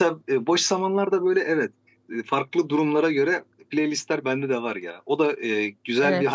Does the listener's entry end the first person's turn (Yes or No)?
No